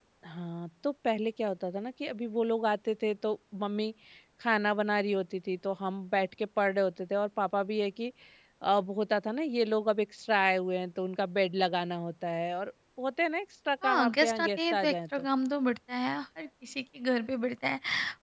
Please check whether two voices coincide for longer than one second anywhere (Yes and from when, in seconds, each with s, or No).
Yes, from 13.8 s